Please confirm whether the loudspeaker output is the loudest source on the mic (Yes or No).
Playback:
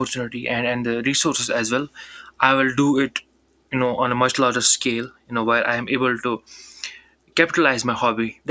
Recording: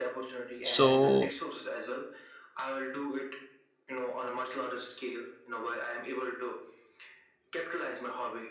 No